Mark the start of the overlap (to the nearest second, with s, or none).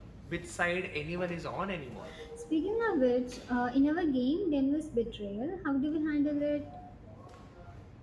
none